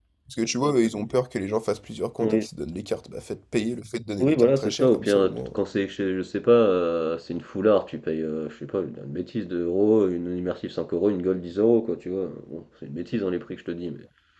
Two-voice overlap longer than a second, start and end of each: 4.2-5.6

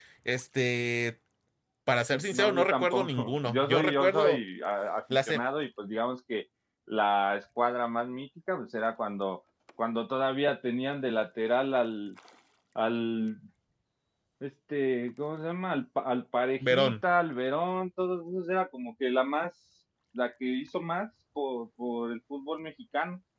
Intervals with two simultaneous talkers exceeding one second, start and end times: 2.1-4.4

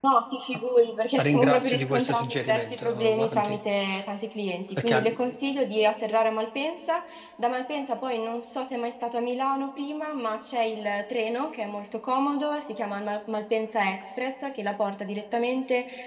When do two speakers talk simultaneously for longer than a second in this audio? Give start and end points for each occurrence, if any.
1.2-3.6

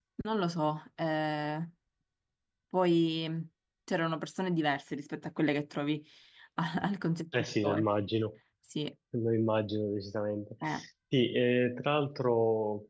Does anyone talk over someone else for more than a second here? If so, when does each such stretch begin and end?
none

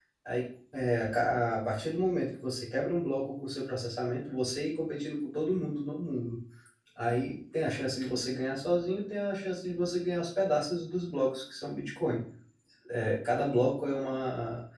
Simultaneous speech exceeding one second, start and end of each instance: none

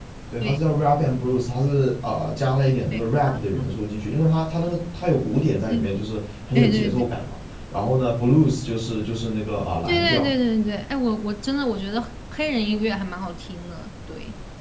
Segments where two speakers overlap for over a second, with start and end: none

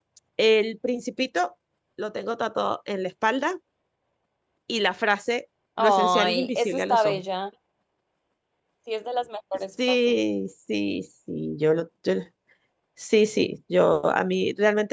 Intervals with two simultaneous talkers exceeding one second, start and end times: 5.8-7.2

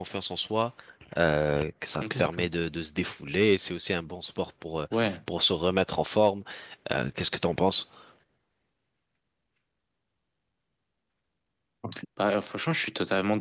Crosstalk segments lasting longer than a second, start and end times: none

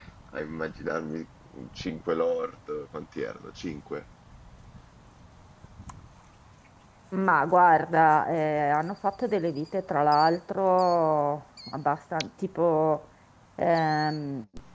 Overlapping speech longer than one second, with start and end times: none

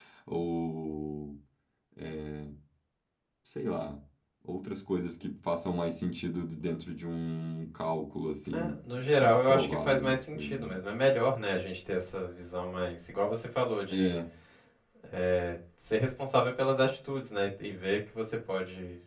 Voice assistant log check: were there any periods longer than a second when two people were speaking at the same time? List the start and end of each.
9.5-10.7

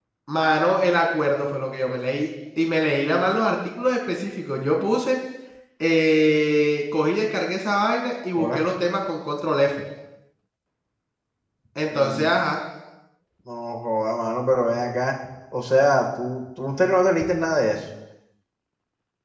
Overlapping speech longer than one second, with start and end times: none

